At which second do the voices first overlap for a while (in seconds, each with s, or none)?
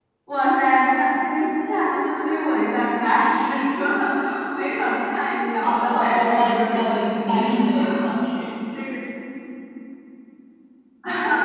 5.6 s